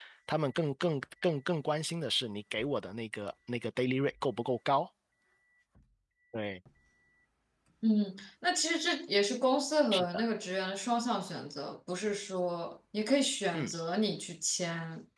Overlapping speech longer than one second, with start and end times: none

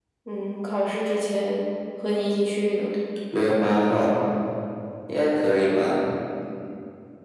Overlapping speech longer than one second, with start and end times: none

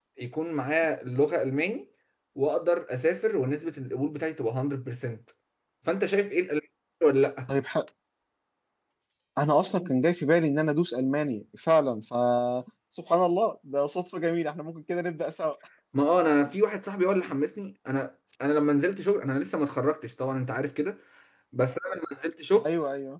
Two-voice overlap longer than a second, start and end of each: none

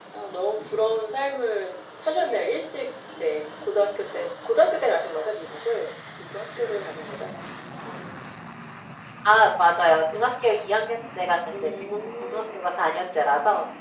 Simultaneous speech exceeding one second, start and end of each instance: 11.5-12.8

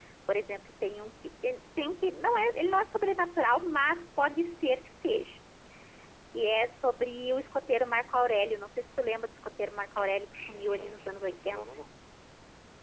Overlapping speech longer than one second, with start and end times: 10.3-11.6

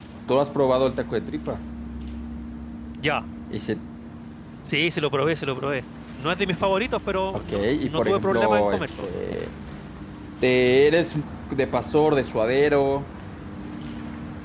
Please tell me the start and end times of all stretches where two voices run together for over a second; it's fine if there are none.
7.3-9.1

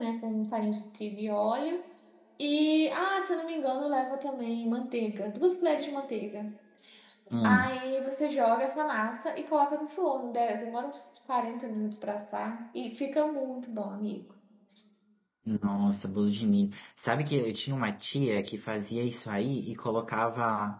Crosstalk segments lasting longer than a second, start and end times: none

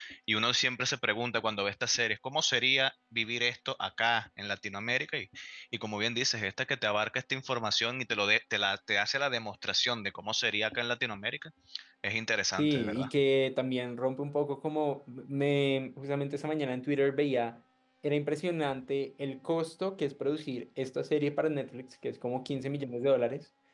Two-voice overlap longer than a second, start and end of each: none

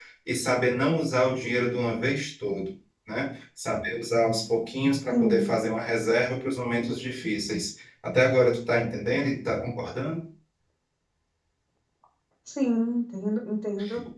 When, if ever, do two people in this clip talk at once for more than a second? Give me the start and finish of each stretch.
none

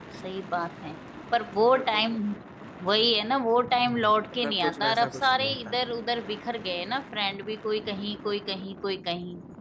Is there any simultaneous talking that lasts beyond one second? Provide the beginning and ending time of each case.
3.8-5.8

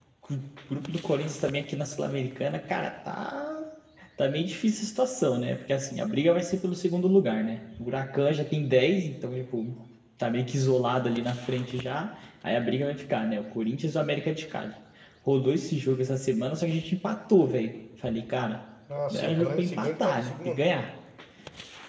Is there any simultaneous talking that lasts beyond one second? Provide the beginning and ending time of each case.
19.1-20.6

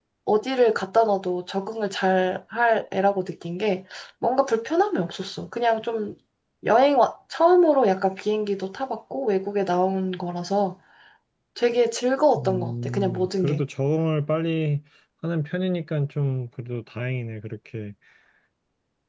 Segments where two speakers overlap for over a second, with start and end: 12.4-13.6

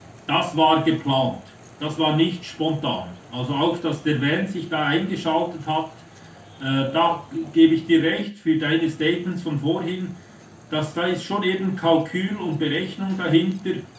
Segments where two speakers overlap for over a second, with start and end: none

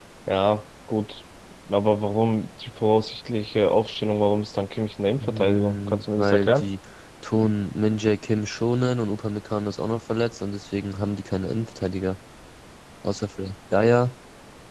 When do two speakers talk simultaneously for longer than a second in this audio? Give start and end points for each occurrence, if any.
5.1-6.6

